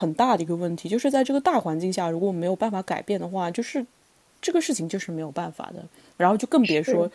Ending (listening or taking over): listening